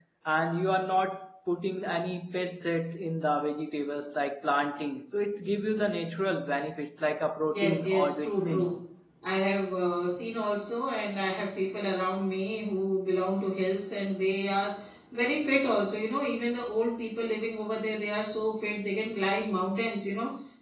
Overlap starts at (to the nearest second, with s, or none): 8 s